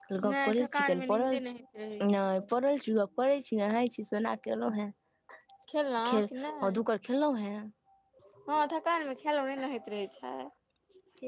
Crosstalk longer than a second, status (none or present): present